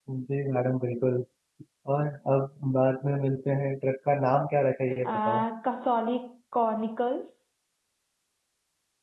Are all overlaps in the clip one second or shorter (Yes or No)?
Yes